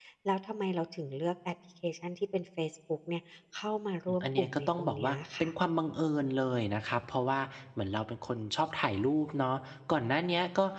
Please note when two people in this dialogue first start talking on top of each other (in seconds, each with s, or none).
4.2 s